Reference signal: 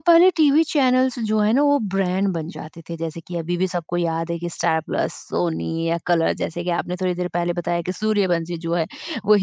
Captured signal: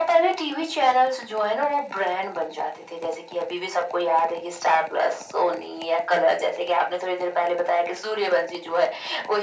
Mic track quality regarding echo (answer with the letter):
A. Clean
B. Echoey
B